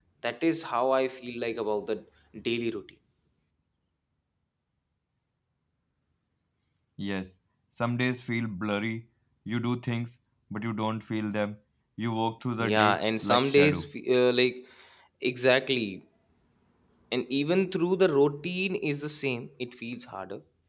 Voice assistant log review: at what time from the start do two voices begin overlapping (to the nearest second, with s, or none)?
13 s